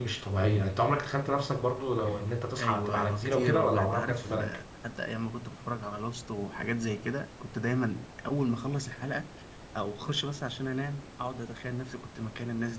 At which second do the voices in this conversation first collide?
3 s

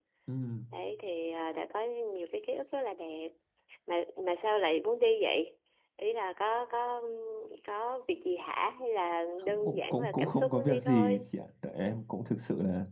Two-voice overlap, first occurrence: 9 s

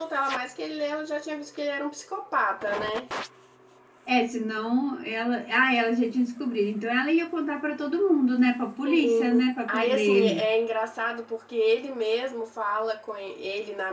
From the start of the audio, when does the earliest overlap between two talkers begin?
9 s

